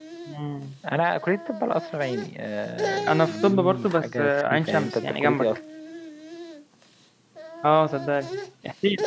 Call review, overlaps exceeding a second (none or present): present